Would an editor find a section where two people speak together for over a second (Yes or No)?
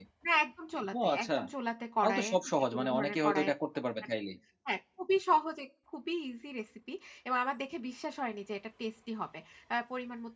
Yes